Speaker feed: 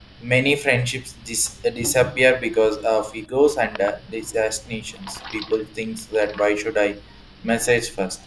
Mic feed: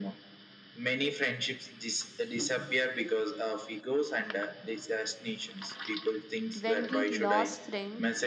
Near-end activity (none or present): present